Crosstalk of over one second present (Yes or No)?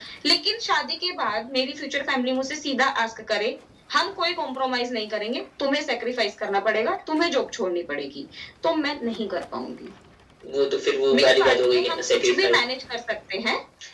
Yes